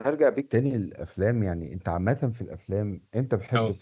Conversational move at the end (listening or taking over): listening